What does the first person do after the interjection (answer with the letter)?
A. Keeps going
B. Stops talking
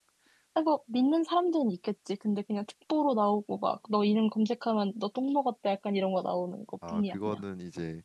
B